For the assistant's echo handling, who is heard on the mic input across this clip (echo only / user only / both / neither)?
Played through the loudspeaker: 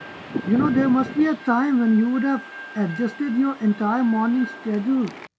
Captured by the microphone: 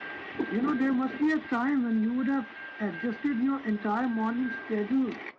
echo only